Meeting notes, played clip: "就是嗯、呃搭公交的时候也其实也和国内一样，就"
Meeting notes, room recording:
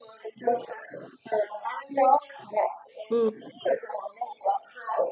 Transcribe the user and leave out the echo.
嗯。

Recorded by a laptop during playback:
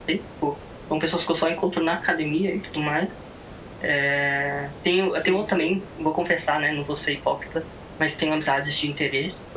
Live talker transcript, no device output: sim, sim.

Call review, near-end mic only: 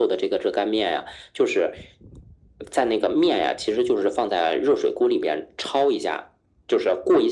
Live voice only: none

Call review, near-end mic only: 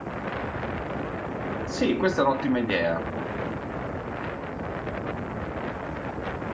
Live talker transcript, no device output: Sì, questa è un'ottima idea.

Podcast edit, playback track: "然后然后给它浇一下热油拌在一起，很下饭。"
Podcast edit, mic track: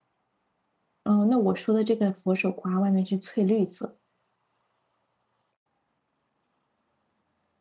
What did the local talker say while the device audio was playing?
哦，那我说的这个佛手瓜外面是翠绿色。

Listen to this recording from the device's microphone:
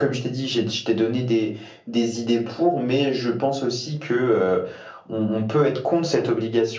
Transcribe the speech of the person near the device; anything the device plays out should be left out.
none

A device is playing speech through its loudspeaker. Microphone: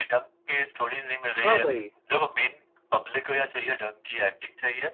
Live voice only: हाँ भाई

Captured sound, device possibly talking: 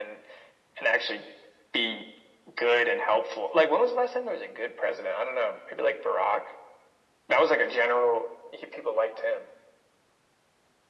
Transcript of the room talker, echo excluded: none

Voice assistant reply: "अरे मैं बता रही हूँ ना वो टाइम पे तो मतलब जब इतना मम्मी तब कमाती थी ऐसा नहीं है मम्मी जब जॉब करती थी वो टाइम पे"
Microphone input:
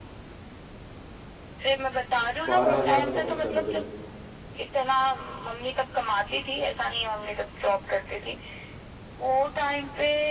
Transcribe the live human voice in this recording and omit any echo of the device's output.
बारह हज़ार से नौकरी चालू करी थी

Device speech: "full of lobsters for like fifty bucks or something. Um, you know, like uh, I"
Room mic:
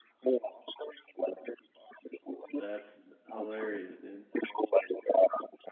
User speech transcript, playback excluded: That's hilarious, dude.

